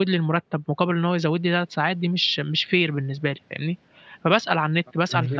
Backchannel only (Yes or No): Yes